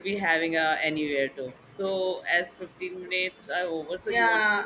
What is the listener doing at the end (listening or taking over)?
taking over